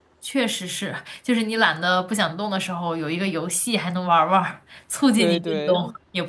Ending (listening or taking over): taking over